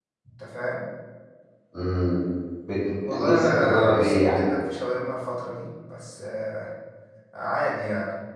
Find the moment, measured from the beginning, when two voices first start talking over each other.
3 s

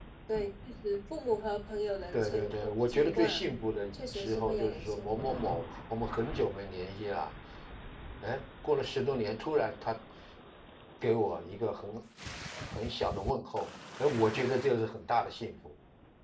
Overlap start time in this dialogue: 2 s

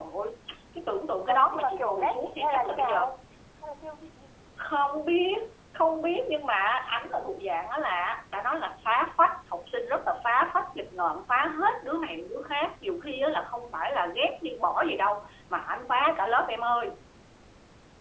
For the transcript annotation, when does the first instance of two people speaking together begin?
1 s

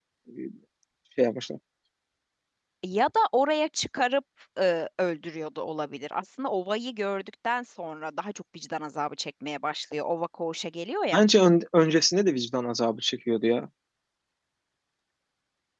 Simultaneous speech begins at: none

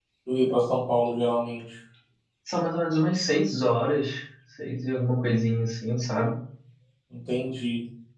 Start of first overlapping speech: none

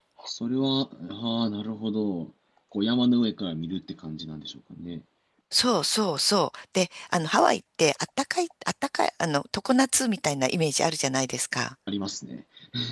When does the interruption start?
none

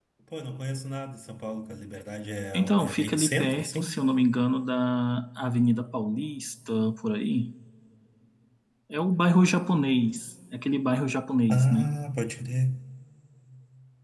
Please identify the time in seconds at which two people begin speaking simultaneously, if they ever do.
3 s

